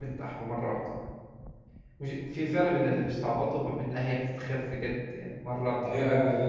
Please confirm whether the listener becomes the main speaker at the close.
Yes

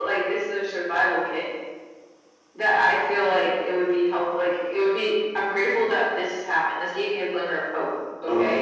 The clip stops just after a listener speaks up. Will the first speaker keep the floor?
No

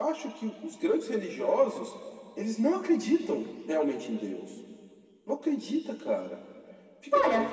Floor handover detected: Yes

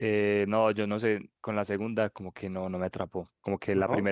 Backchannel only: Yes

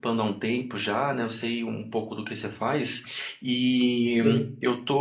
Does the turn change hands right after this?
No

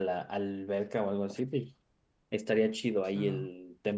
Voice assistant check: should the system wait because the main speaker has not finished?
Yes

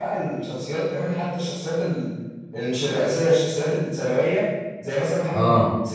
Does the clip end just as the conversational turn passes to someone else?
No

